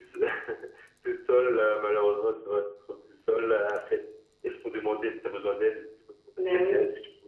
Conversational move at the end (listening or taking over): listening